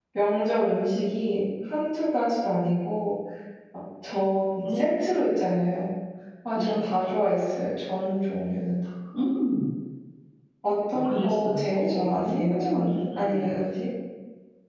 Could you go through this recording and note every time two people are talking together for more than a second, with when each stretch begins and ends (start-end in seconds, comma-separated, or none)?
10.9-13.6